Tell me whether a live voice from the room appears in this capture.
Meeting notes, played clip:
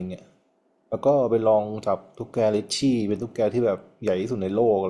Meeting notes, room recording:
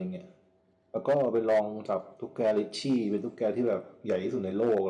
No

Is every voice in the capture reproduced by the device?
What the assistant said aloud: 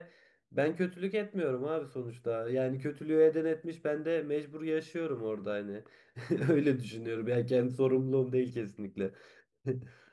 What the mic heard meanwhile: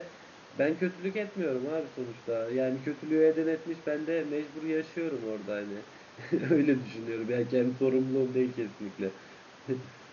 Yes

